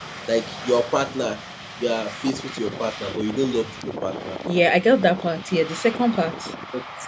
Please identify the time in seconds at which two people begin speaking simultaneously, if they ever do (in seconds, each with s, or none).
none